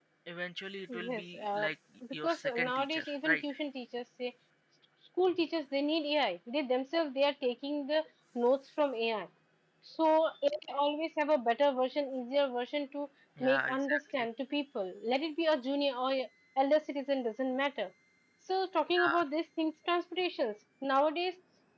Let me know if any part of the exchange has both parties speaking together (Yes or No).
Yes